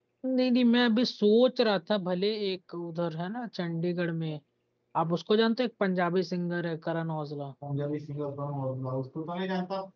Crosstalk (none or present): none